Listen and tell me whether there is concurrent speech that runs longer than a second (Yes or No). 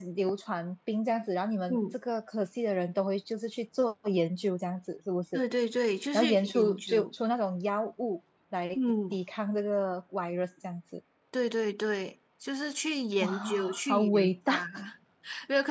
Yes